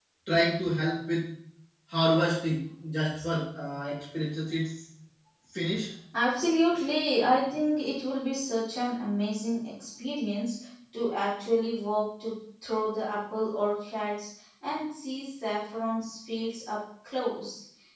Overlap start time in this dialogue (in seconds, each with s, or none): none